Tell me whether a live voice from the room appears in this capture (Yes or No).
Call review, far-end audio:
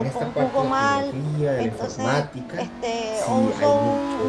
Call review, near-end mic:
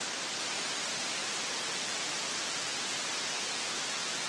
No